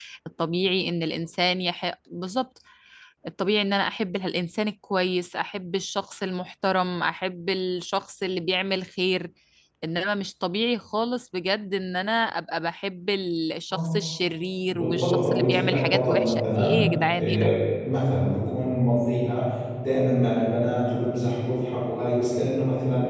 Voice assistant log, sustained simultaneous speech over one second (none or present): present